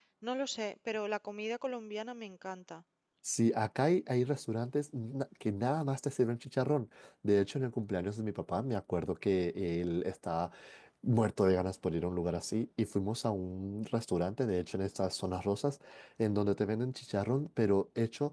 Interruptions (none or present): none